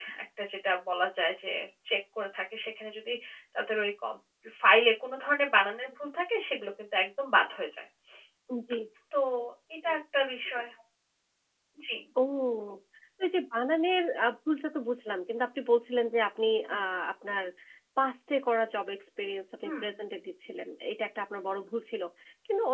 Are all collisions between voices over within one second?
Yes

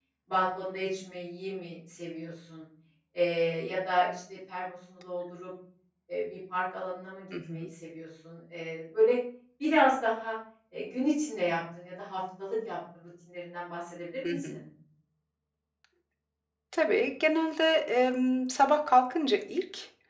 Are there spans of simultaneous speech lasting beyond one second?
No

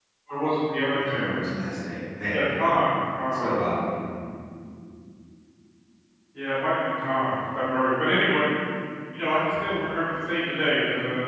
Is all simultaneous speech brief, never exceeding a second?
Yes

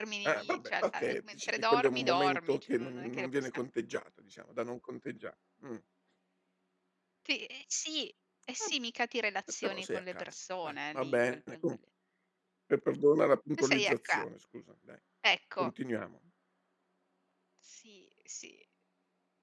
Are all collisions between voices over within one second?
No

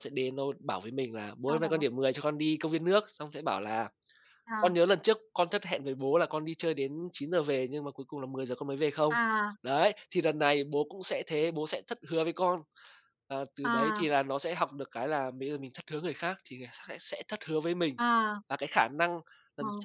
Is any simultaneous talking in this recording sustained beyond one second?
No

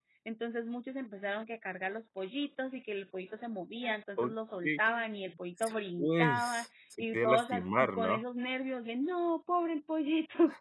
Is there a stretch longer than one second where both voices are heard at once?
Yes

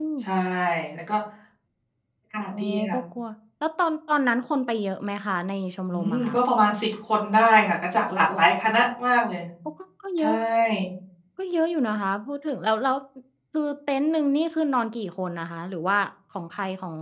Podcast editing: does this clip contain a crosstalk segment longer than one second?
No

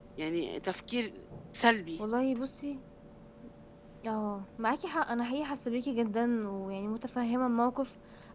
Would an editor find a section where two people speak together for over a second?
No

